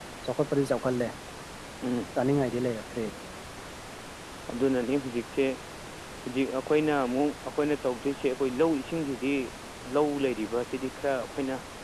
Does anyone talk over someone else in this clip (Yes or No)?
No